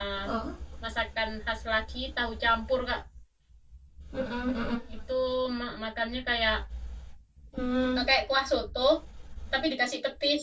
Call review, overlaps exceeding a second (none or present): none